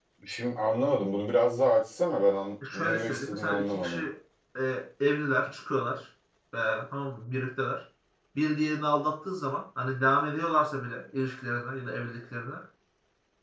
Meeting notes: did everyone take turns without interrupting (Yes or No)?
No